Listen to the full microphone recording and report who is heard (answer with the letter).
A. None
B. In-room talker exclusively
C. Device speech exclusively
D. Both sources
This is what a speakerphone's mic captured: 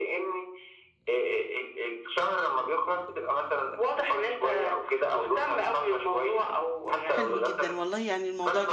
D